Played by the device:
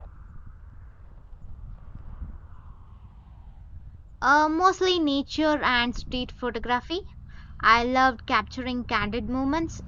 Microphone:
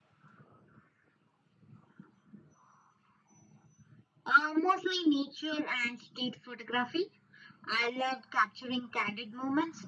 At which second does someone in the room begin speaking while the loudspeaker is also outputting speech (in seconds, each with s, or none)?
none